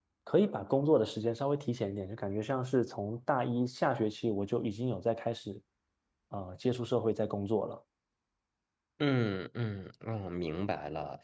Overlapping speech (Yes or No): No